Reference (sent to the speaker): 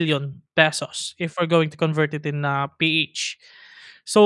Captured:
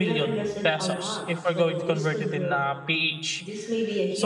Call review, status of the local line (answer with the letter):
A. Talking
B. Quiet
A